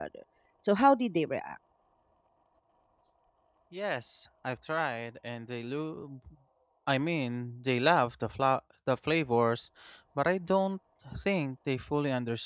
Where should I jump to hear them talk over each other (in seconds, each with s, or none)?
none